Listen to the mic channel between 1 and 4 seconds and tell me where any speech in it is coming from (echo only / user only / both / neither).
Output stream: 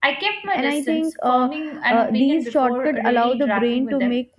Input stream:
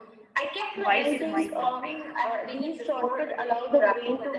both